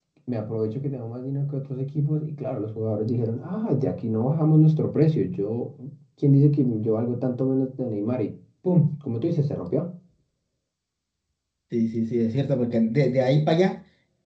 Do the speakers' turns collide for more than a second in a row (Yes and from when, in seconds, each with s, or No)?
No